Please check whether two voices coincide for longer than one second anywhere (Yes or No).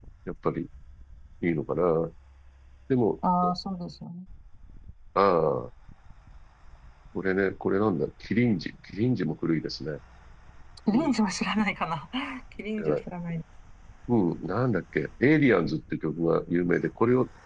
No